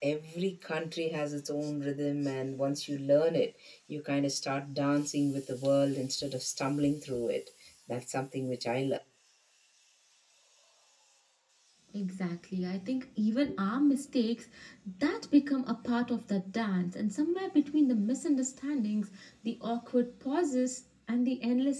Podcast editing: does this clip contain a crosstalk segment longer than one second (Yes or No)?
No